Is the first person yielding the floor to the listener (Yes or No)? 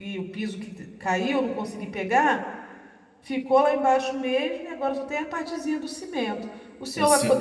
No